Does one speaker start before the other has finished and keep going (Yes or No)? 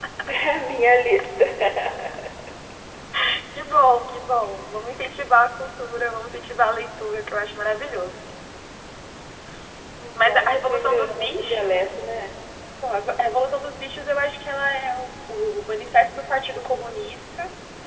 Yes